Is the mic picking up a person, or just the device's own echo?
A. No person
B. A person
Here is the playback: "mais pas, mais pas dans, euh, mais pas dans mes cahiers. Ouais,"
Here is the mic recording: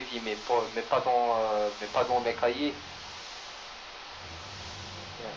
A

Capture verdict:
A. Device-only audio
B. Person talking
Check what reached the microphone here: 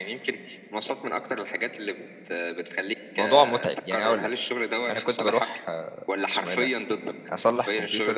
B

